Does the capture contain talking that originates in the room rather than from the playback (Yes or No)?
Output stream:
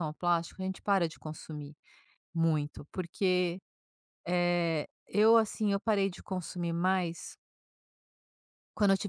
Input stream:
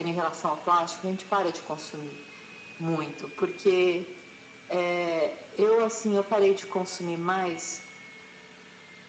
No